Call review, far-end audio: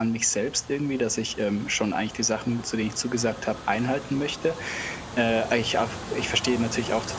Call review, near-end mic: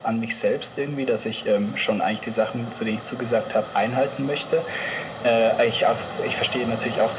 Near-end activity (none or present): none